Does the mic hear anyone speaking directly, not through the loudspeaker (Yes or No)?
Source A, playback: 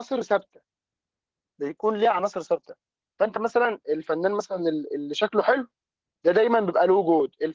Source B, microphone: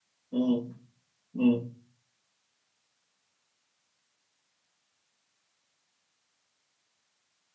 Yes